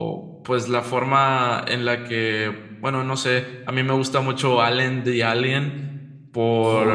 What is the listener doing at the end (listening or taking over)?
listening